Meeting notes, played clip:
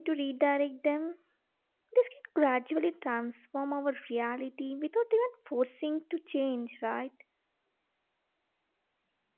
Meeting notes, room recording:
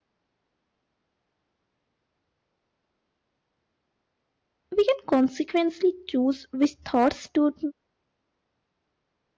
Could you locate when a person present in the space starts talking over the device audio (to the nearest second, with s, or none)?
5 s